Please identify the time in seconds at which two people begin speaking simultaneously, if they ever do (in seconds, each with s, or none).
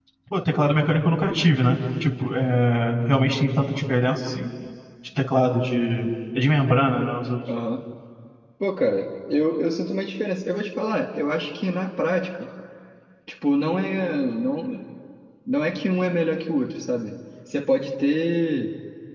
none